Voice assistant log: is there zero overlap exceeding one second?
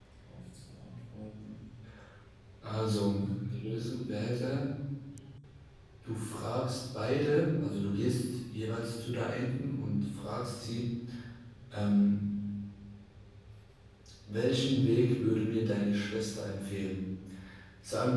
Yes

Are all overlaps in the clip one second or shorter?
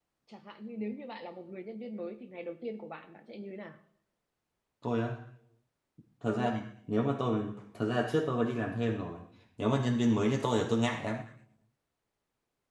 Yes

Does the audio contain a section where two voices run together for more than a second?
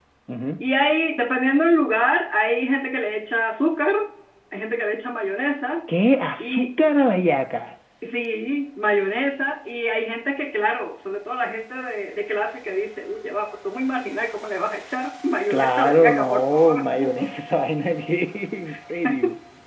Yes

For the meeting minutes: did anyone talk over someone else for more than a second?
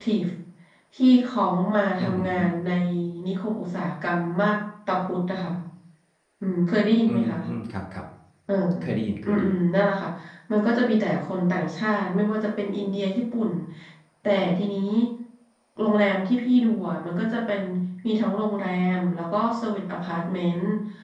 No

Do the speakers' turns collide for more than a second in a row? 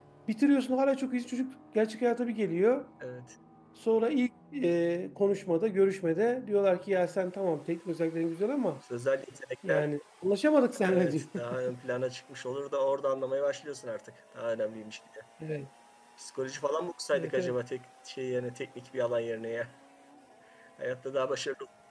No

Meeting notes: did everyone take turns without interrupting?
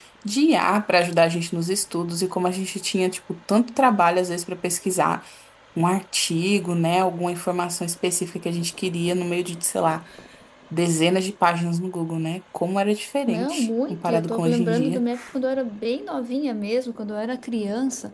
No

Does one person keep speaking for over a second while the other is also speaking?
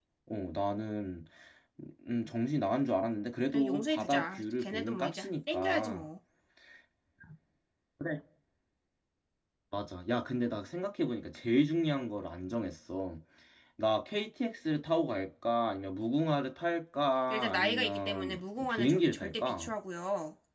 Yes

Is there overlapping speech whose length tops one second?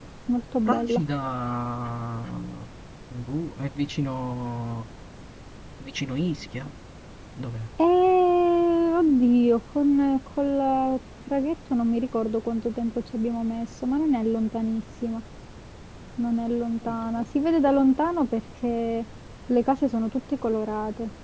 No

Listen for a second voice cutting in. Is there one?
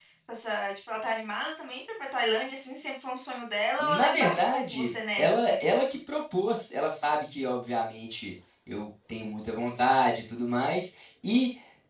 Yes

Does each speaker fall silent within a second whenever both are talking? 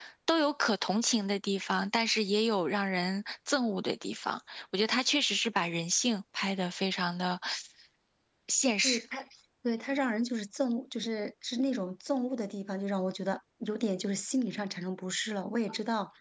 Yes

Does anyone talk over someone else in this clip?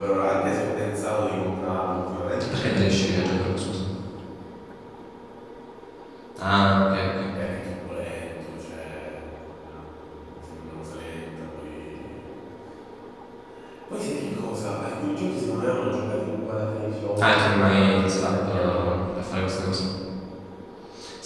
Yes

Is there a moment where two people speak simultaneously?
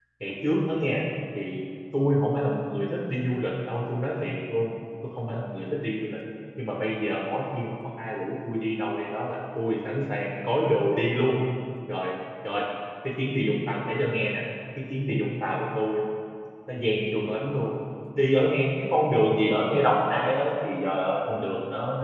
No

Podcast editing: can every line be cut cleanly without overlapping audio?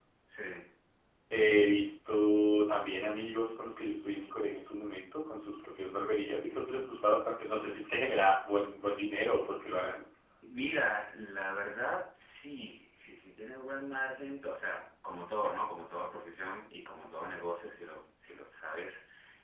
Yes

